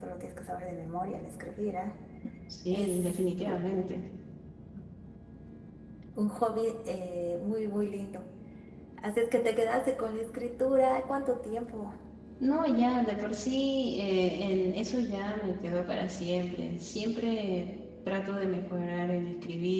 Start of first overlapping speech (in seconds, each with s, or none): 2.7 s